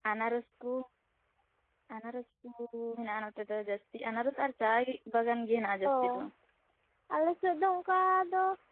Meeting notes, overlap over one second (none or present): none